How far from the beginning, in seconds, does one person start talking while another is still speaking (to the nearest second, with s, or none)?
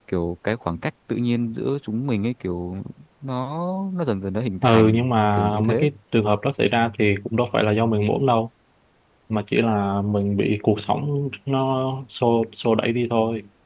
5 s